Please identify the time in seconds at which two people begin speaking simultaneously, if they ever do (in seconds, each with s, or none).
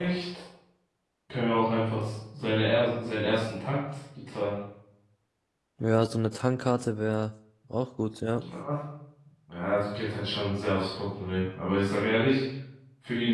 none